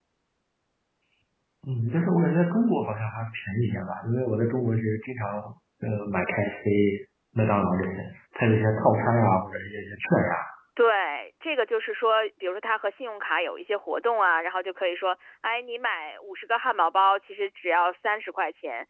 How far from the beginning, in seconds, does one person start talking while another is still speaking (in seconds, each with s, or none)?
none